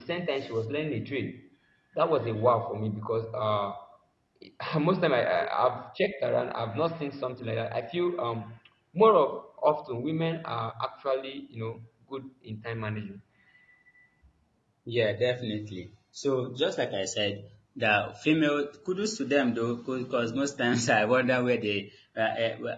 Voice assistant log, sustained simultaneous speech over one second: none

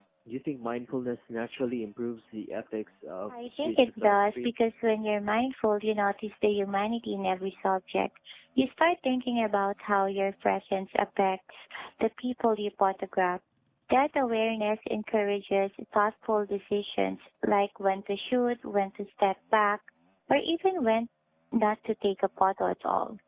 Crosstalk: present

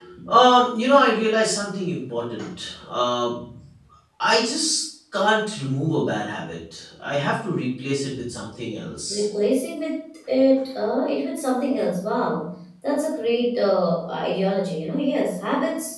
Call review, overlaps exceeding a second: none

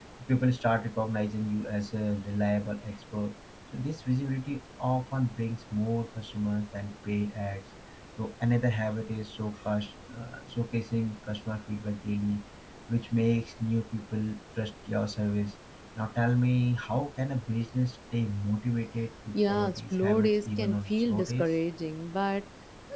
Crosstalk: present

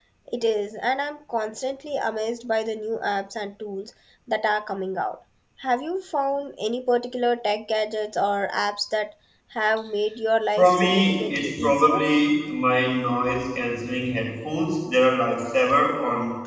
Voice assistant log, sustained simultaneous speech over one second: present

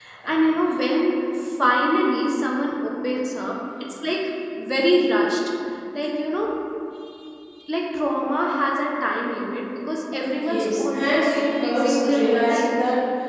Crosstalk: present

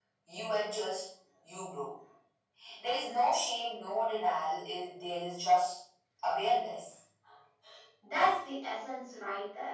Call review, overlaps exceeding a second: none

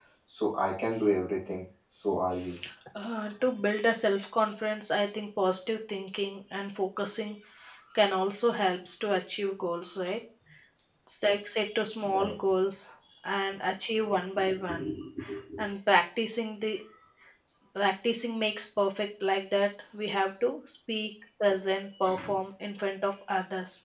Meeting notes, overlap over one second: none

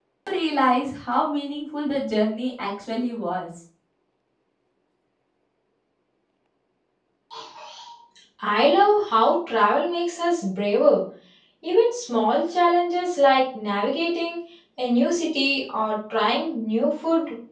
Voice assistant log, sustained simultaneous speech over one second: none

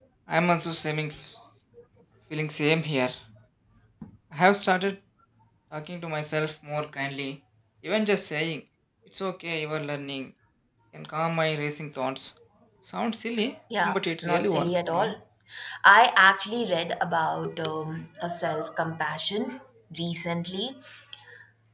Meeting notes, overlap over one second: present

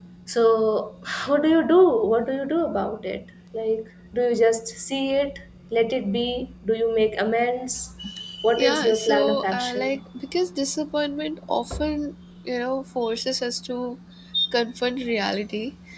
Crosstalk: present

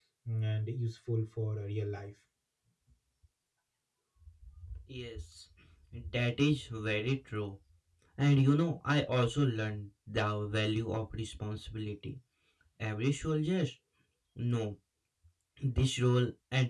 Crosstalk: none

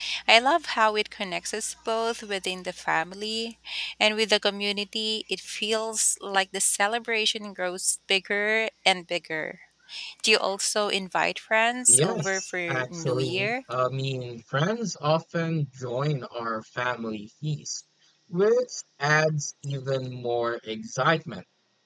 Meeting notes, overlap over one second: present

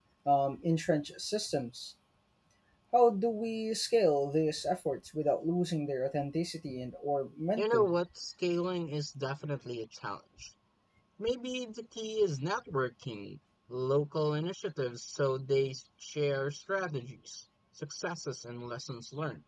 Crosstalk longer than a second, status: none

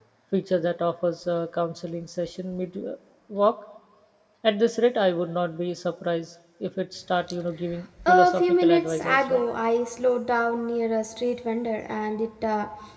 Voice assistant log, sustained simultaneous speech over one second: present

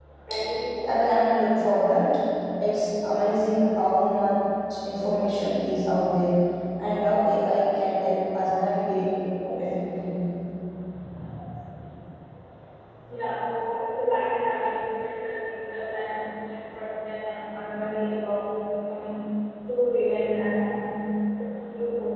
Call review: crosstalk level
none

